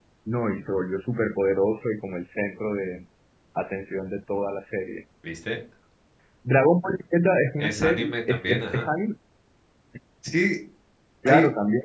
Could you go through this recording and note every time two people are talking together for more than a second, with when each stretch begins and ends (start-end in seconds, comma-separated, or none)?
7.6-8.8